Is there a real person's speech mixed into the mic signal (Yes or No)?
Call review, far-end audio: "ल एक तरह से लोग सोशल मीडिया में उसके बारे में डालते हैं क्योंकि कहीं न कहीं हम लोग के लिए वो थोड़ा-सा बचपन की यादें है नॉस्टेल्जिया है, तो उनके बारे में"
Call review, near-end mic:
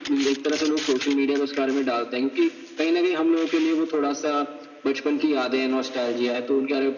No